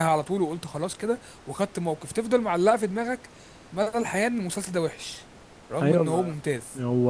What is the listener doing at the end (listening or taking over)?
taking over